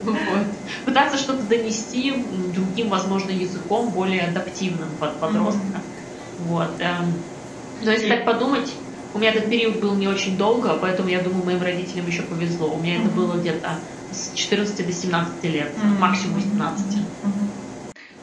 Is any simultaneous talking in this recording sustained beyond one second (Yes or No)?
Yes